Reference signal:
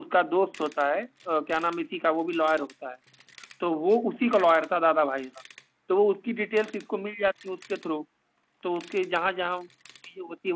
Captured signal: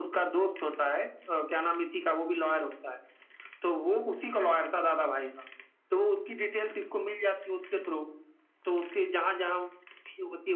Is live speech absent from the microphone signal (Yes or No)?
Yes